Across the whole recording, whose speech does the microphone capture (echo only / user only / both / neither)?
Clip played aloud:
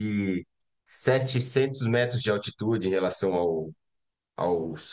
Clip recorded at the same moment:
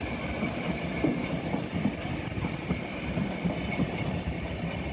neither